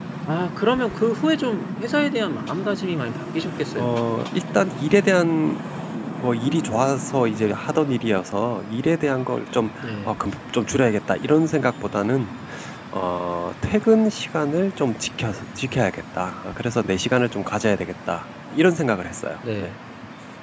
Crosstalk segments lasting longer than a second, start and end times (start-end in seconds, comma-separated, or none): none